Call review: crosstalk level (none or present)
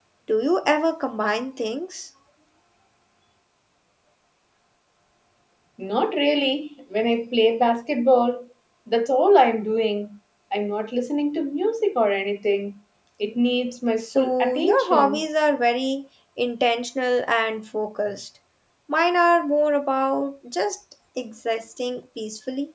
present